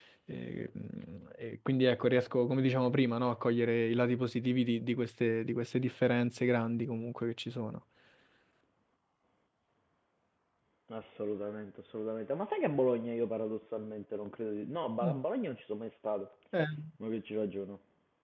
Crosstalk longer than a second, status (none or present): none